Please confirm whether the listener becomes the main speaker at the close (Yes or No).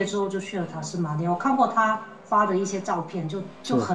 No